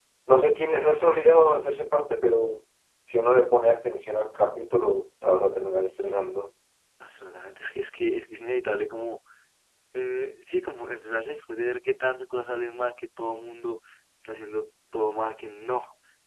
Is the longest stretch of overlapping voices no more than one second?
Yes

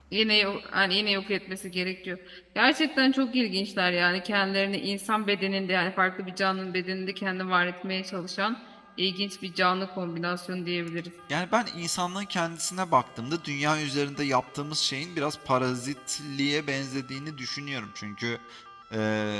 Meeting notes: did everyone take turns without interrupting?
Yes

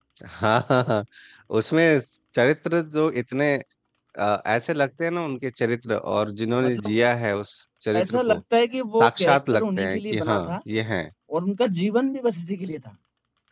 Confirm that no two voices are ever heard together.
No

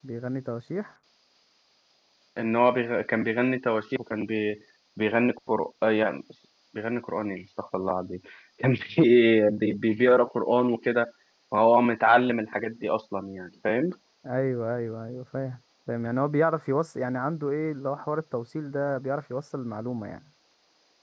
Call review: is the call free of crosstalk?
Yes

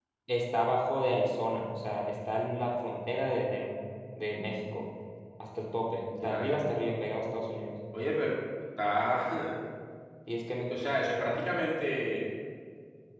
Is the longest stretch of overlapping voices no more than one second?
Yes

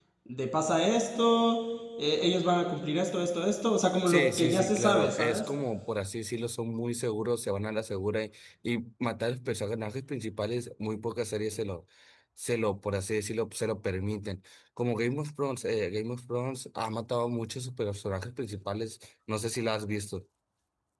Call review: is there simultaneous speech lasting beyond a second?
Yes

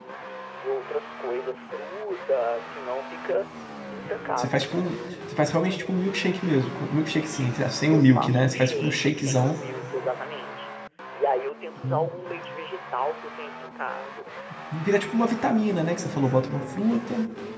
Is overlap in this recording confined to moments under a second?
No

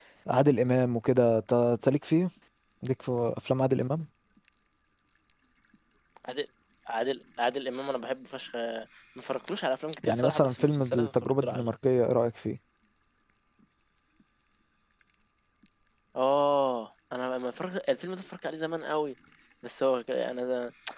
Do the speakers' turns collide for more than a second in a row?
Yes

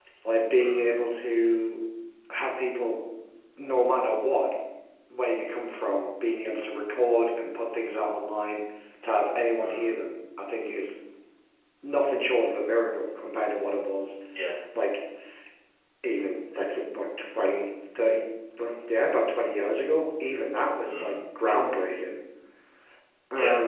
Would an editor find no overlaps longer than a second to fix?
Yes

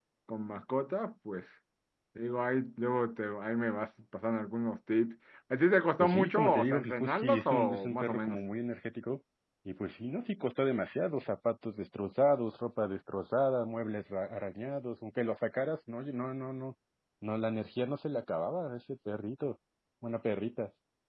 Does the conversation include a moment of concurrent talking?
Yes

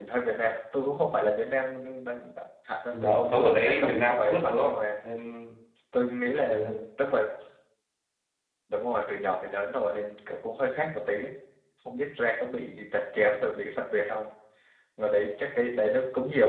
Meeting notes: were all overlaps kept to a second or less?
No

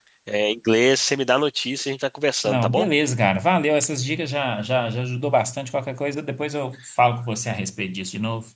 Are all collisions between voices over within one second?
Yes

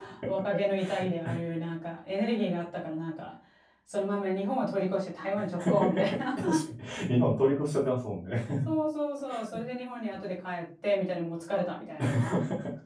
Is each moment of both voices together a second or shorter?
Yes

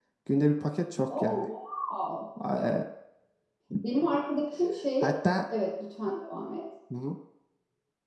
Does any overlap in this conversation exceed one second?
No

